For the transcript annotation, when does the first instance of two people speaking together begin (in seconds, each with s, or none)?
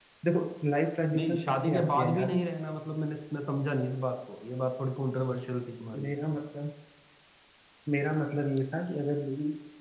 1.1 s